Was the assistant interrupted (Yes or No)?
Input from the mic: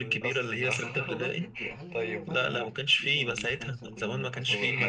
Yes